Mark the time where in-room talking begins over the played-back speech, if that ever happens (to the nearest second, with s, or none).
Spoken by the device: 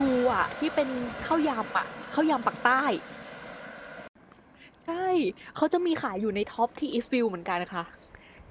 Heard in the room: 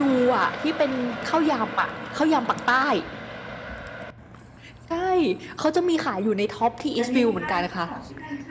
7 s